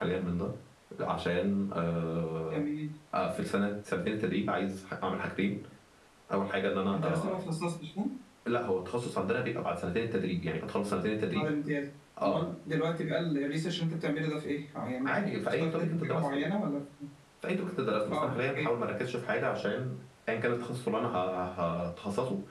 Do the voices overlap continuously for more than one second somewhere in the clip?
Yes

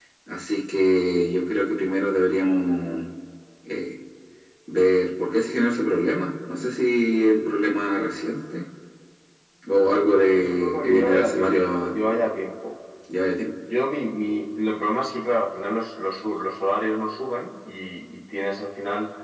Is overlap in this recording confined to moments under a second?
No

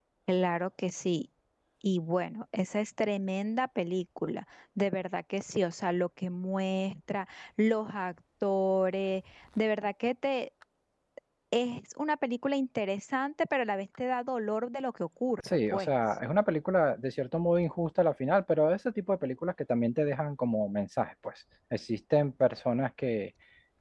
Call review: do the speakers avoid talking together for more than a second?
Yes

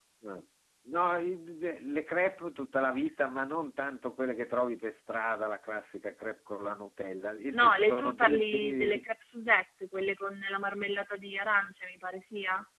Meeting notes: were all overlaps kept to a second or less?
No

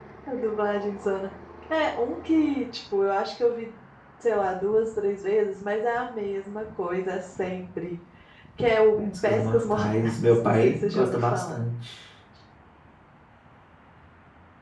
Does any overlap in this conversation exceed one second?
Yes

